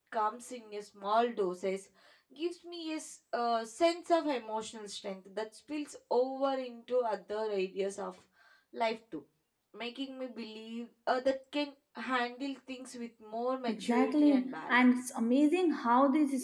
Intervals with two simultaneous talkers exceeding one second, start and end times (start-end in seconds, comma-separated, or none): 13.7-15.1